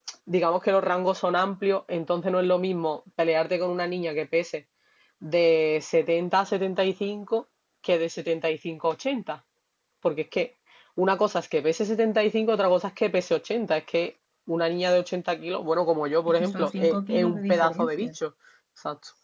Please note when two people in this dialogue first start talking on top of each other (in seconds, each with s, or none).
16.2 s